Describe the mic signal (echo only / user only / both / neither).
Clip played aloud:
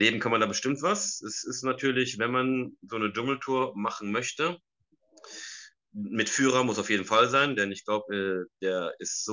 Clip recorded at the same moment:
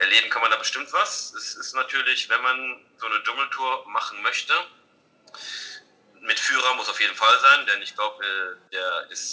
echo only